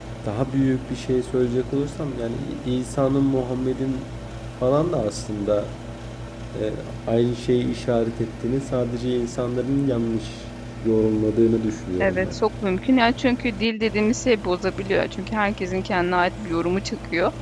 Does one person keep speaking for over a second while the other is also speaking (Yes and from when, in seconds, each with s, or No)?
No